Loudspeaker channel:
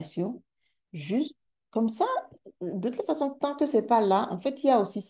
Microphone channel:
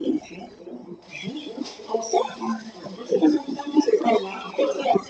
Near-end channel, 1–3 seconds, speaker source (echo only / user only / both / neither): echo only